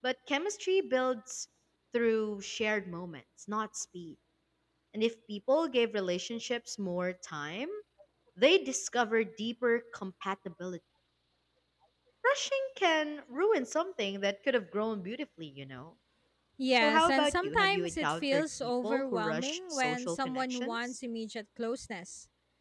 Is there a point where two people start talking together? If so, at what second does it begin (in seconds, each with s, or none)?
16.8 s